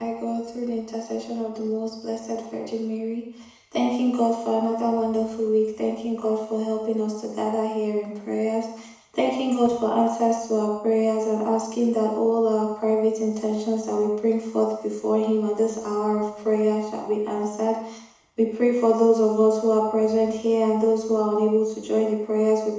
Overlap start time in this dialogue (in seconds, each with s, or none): none